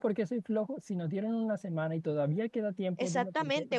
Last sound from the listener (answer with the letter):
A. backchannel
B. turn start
B